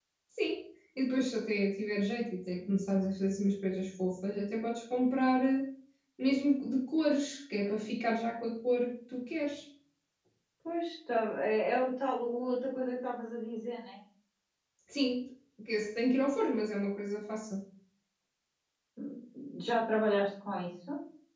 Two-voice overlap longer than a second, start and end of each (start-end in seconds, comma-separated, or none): none